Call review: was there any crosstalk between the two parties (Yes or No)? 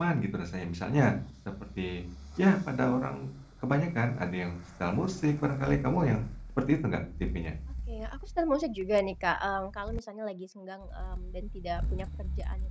No